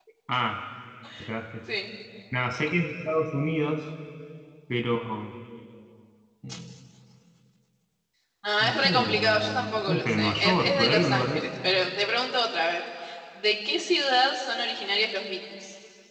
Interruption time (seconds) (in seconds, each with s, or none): 8.6 s